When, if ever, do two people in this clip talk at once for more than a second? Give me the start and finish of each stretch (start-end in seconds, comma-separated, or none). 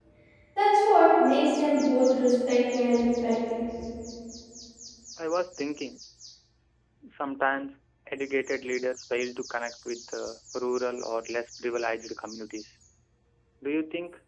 none